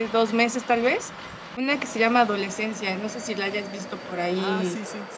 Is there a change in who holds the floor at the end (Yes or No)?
Yes